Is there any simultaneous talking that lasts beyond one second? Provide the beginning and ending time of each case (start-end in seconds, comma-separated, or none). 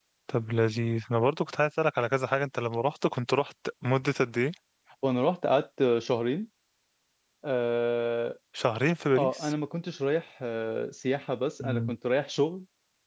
none